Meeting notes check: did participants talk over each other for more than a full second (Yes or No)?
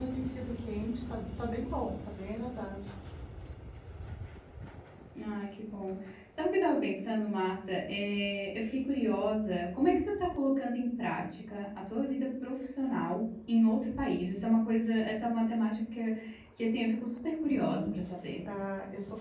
No